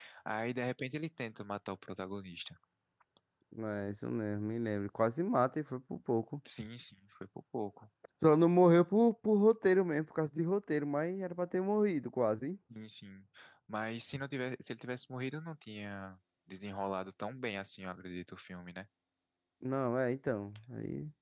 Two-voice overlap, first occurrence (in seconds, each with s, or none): none